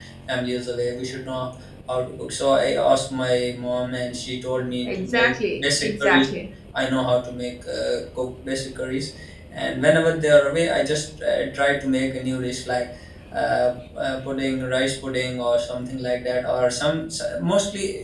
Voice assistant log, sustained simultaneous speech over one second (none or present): present